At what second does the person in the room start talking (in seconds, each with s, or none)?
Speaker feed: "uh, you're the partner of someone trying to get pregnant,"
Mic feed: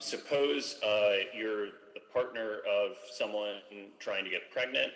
none